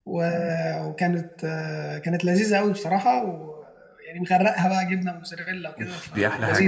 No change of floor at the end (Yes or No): No